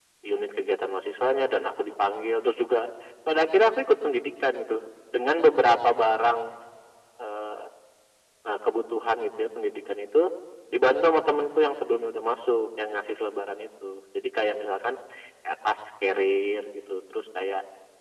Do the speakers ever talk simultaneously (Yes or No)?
No